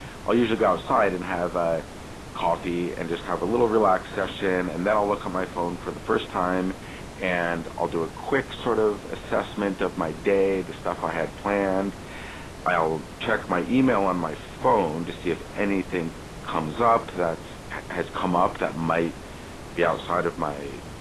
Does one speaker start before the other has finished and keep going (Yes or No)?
No